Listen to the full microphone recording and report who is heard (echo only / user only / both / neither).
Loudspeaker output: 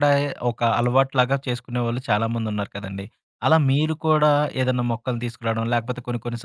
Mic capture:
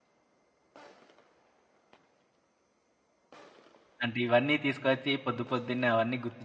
user only